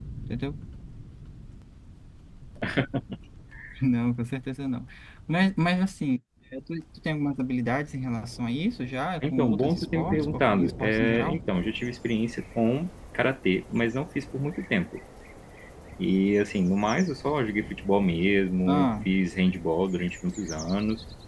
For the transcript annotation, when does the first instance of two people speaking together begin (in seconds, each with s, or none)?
9.3 s